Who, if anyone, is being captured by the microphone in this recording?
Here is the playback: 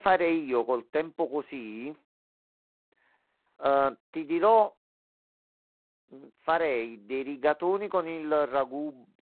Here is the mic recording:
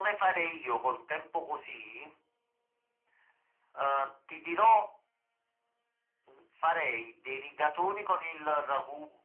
echo only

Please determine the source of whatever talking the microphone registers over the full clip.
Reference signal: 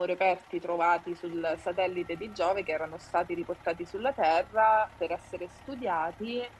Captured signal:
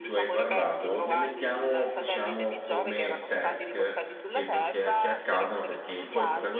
both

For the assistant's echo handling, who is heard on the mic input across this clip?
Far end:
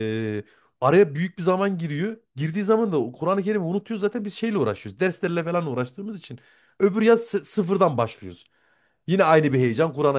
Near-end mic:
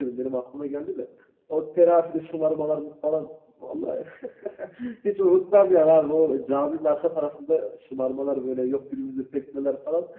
user only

